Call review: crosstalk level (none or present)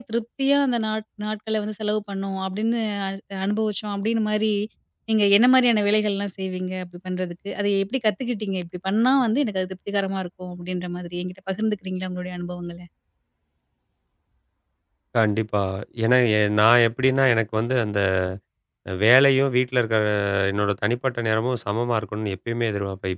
none